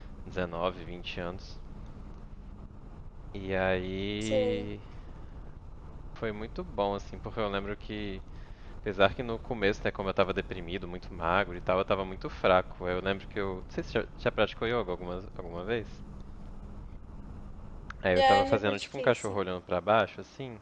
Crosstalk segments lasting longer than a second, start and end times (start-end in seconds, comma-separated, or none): 18.2-19.4